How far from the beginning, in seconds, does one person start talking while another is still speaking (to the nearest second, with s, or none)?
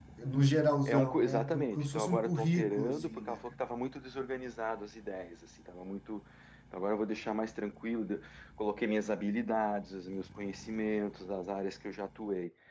1 s